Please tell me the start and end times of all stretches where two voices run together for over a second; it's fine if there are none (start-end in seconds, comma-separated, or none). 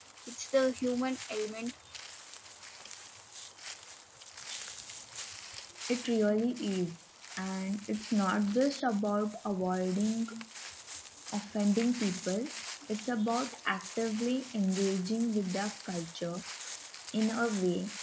none